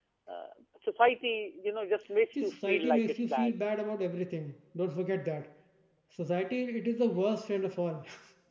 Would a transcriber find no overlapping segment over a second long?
No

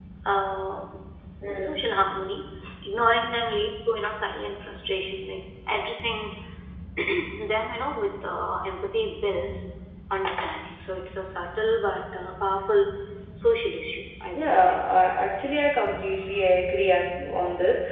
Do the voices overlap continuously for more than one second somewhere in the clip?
No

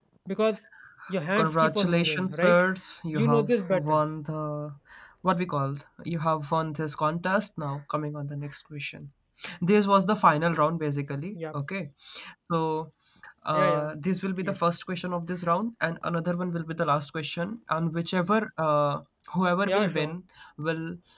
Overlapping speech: Yes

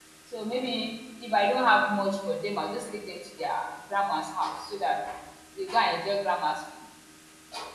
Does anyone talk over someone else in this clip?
No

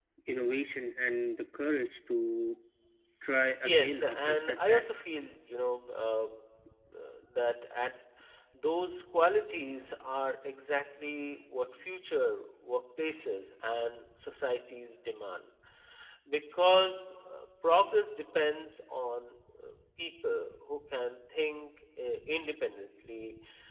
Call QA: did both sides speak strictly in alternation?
No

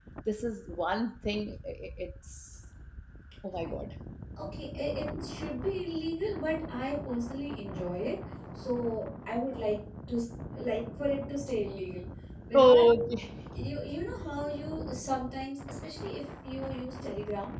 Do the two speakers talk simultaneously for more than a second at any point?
No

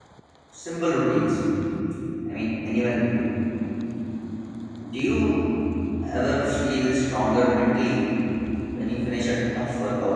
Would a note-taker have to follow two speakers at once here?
No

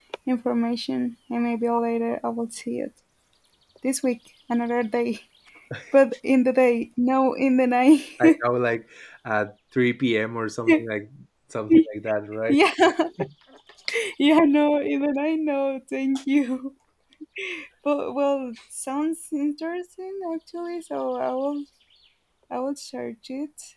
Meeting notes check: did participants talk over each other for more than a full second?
No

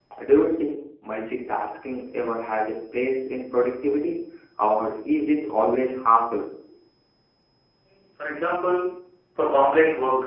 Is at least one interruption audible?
No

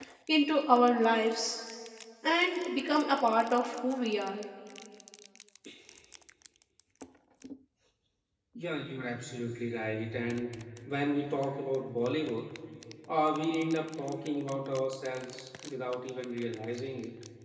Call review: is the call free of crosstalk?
Yes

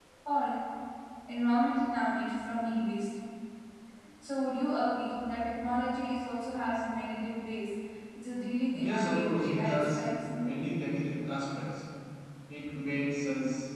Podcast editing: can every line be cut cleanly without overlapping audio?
No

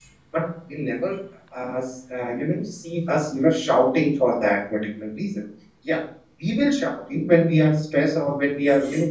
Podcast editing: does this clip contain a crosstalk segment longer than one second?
No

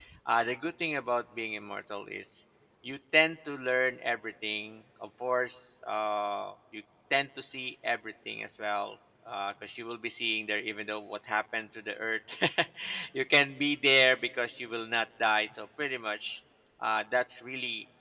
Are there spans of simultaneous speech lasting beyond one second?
No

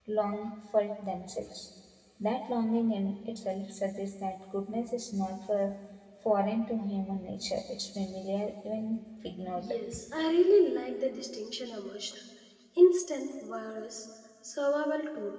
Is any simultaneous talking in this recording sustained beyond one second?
No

